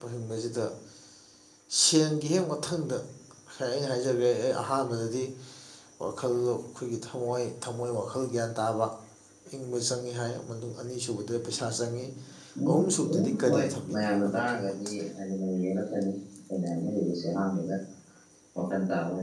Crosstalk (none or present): present